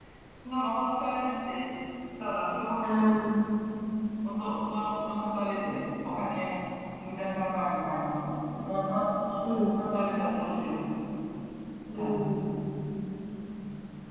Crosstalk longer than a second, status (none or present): none